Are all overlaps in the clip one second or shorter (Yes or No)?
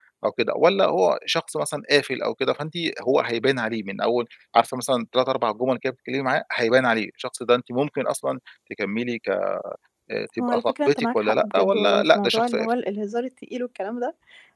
No